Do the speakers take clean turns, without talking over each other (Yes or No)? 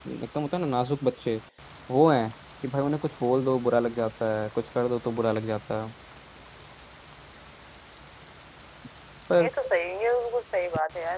Yes